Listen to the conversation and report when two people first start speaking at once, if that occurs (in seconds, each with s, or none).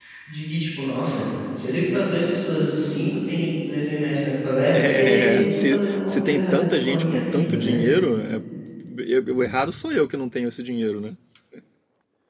4.7 s